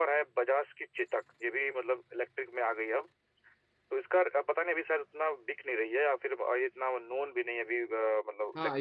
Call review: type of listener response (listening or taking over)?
taking over